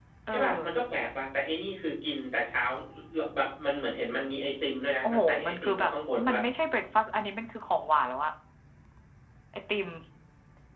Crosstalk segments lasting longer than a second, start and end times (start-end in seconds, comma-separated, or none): 5.0-6.4